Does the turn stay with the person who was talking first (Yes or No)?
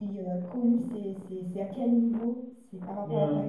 No